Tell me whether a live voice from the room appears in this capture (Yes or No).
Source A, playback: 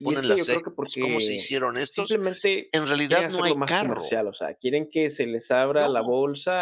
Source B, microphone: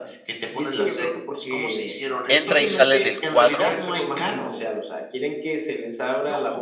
Yes